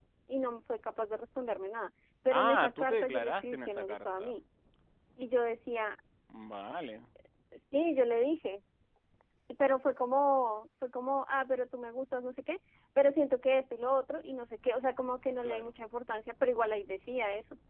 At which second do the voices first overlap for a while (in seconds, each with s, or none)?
2.3 s